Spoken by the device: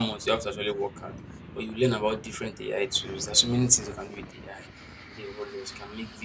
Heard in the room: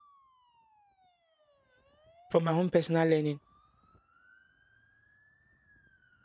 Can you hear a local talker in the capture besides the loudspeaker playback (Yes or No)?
Yes